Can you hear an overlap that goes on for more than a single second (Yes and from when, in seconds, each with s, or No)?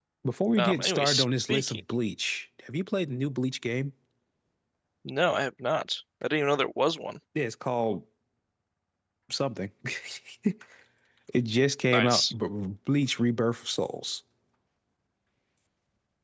Yes, from 0.6 s